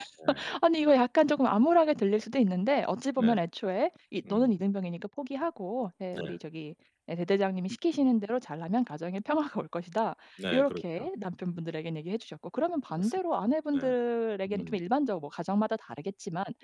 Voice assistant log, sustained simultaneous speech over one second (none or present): none